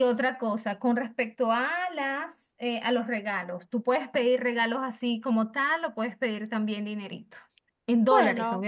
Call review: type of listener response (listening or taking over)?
listening